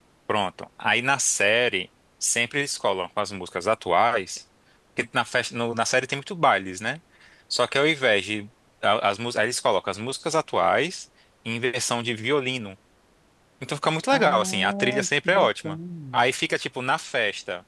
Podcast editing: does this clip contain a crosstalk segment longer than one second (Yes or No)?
Yes